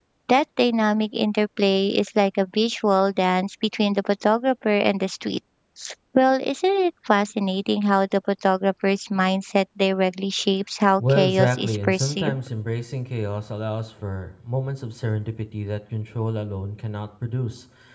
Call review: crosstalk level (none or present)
present